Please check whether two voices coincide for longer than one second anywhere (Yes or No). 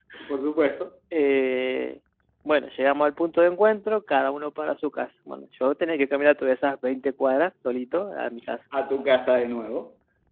No